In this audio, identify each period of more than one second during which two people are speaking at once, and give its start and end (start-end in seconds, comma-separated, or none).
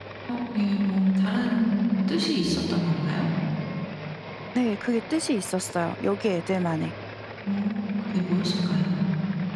none